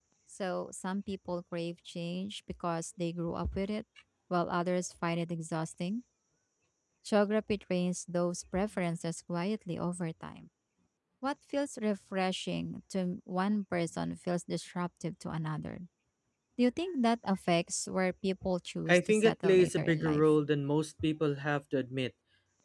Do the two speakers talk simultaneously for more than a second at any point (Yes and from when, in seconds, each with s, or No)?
Yes, from 18.9 s